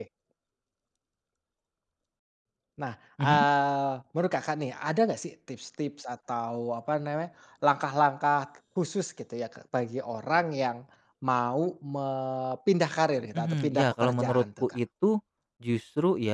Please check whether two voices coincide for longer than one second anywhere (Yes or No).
Yes